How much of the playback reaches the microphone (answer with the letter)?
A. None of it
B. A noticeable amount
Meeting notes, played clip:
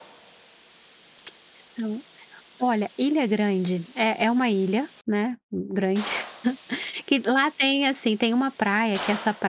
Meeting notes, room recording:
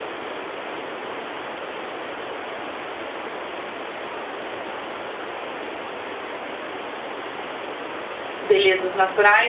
A